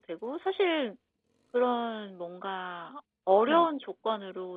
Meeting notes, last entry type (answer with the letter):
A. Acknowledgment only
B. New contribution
A